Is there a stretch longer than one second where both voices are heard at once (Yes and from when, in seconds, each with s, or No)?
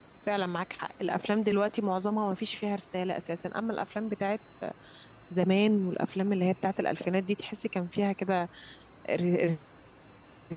No